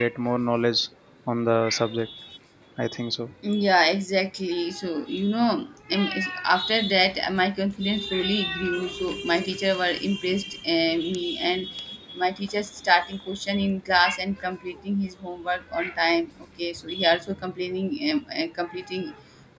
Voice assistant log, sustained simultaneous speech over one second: none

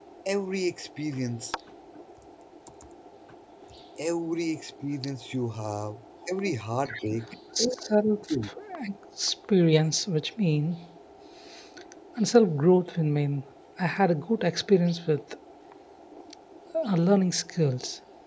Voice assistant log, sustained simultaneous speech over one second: none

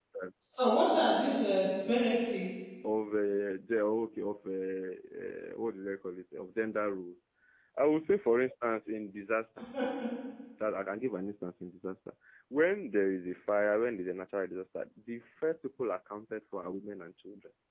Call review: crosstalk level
none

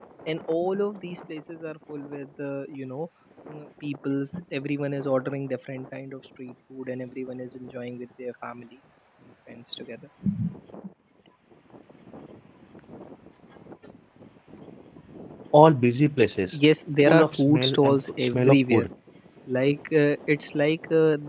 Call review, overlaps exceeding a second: present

